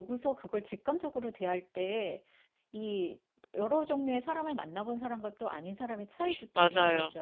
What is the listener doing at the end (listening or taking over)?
taking over